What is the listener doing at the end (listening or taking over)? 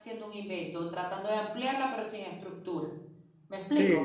taking over